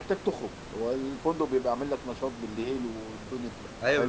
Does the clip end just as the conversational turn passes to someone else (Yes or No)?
Yes